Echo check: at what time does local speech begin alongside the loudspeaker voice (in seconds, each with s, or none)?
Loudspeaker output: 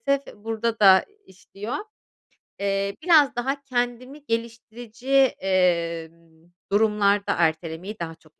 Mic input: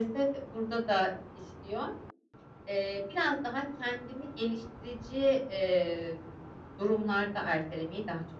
none